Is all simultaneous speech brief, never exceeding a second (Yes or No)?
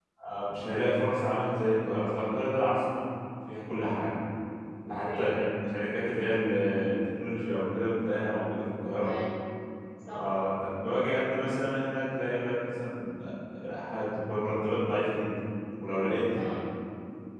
Yes